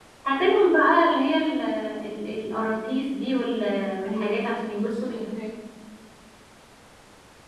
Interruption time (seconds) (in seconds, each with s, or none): 4.0 s